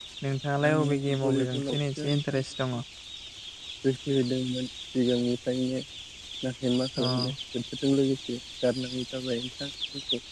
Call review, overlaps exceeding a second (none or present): present